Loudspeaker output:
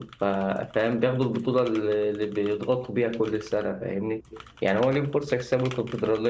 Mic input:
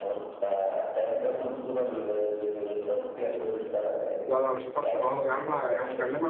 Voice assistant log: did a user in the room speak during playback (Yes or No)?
Yes